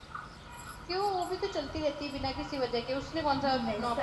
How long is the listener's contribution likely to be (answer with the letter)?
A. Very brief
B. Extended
B